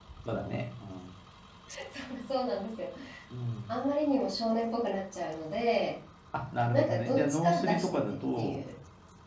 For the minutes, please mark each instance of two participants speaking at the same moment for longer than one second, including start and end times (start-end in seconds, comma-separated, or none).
6.7-8.6